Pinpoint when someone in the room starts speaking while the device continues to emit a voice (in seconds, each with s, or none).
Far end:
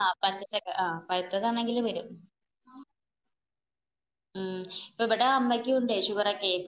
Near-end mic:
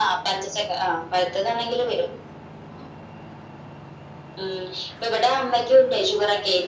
none